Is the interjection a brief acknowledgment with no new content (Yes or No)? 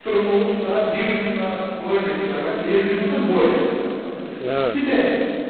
Yes